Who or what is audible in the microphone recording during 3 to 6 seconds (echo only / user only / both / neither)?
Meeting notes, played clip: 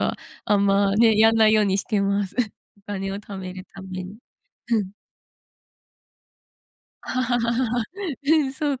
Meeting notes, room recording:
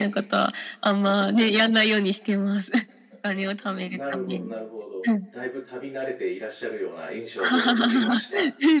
both